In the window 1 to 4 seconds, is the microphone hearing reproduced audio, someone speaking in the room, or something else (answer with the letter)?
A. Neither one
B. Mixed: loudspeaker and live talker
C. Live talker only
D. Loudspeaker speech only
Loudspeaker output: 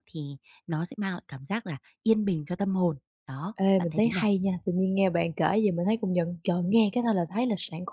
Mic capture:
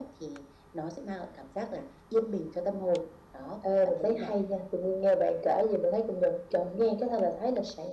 D